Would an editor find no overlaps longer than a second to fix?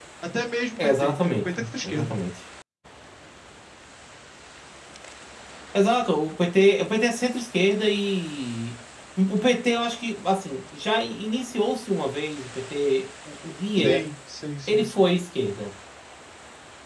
No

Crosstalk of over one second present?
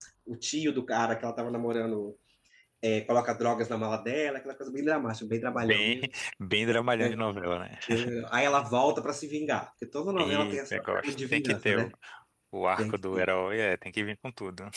Yes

